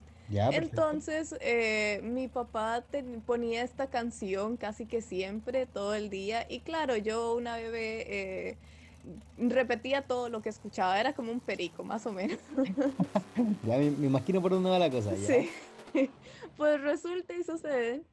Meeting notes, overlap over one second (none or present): none